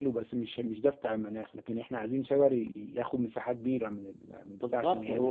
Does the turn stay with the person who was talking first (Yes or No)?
No